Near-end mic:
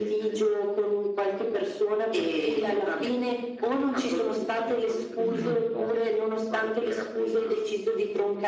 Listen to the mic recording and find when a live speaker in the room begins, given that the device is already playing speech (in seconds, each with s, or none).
5.2 s